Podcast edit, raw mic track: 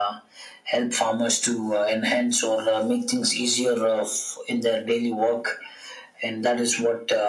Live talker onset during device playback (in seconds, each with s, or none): none